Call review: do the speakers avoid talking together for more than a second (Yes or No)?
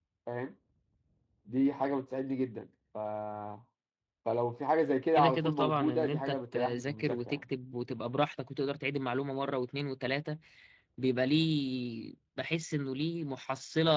No